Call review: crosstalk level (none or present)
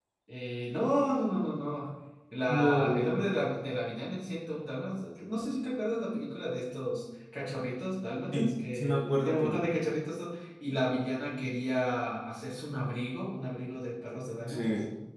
present